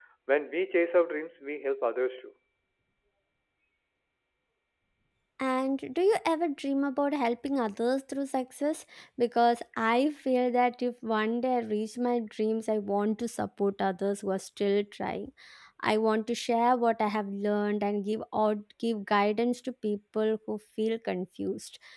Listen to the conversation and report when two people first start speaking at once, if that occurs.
none

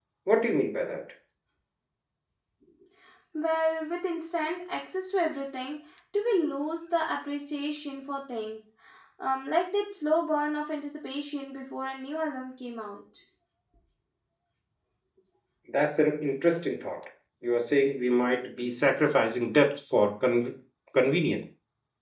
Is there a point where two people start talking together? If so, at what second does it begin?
none

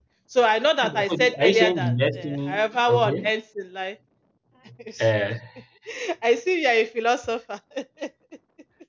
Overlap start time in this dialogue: 1 s

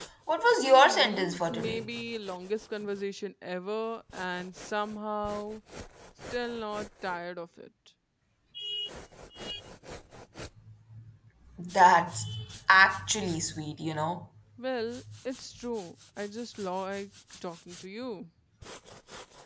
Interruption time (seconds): 1 s

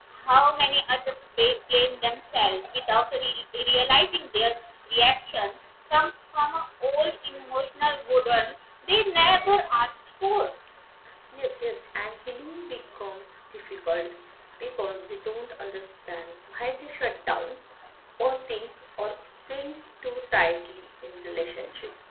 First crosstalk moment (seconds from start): none

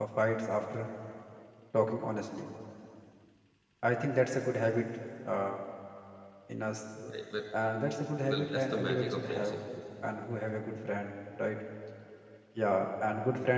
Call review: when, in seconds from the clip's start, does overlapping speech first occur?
8 s

